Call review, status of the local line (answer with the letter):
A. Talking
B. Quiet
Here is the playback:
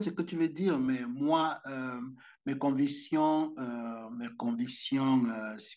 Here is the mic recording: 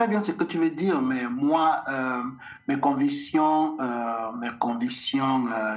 B